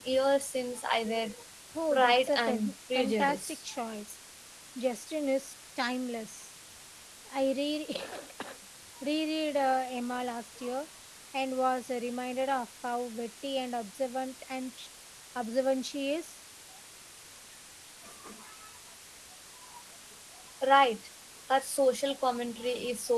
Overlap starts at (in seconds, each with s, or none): 1.9 s